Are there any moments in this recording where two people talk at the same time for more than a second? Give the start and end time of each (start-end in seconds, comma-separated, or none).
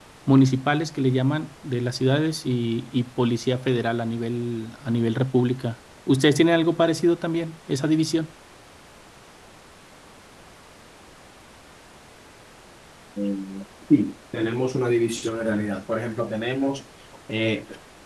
none